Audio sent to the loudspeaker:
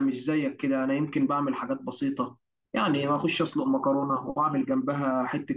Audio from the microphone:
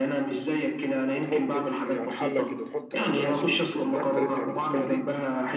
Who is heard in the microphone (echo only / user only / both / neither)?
both